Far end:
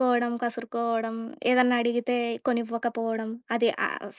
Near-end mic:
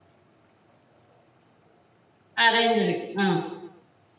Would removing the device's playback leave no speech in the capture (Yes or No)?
No